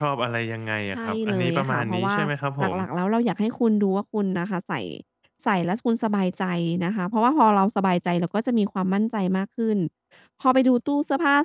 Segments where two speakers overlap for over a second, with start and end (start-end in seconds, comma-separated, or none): 0.9-2.2